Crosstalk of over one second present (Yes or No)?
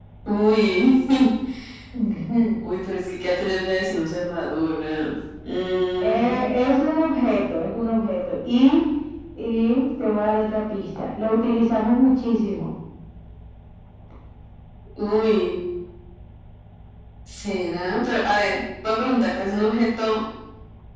No